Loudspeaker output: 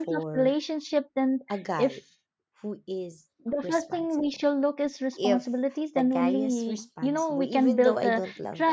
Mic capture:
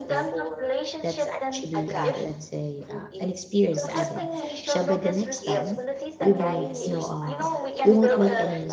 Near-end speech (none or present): present